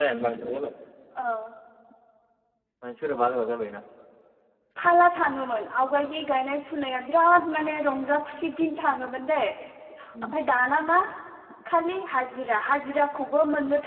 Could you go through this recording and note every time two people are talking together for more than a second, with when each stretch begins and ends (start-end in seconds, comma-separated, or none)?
none